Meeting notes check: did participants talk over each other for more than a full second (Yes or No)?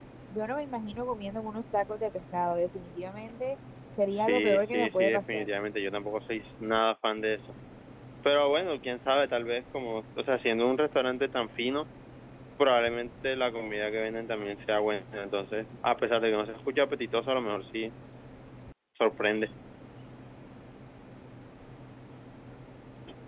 Yes